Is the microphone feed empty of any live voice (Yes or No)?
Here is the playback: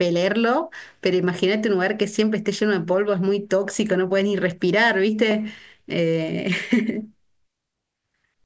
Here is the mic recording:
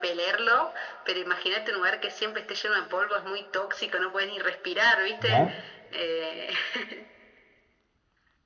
No